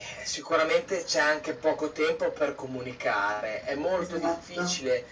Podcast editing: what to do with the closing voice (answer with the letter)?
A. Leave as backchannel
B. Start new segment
A